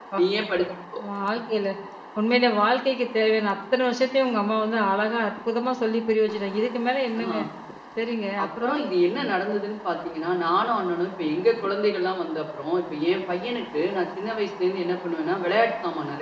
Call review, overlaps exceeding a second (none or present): none